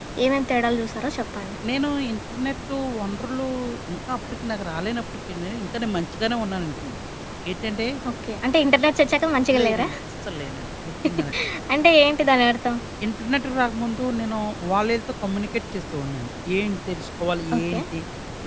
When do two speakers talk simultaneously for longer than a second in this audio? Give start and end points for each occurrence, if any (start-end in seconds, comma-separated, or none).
none